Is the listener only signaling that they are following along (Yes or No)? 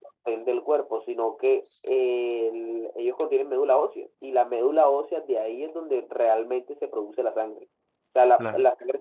Yes